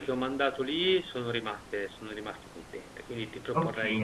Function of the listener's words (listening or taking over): taking over